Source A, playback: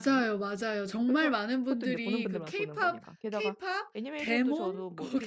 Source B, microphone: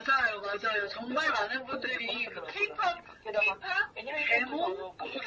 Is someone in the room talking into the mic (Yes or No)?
No